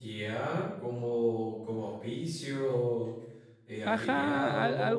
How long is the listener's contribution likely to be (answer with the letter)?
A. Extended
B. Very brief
A